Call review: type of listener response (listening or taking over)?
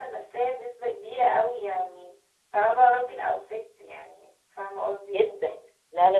taking over